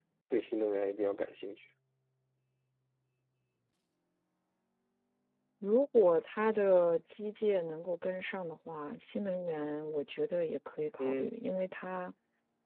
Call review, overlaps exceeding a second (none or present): none